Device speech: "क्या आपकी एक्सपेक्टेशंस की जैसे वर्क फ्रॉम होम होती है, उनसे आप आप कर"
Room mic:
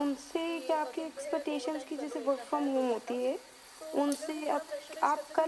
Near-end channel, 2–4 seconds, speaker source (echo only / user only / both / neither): both